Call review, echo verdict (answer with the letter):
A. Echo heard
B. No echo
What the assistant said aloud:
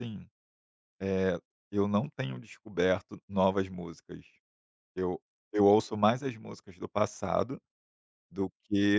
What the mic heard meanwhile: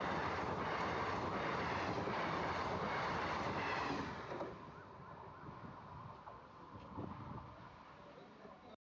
B